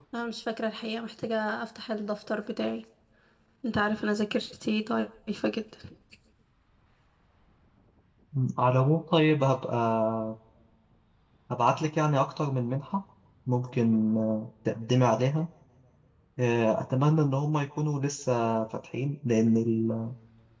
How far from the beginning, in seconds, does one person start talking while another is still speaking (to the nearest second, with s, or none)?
none